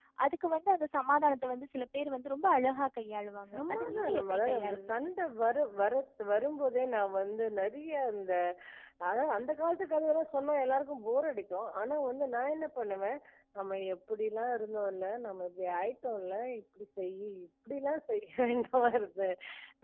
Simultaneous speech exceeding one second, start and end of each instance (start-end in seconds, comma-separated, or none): 3.5-5.0